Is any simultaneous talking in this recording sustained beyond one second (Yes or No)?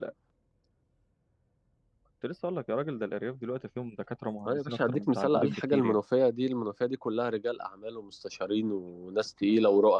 Yes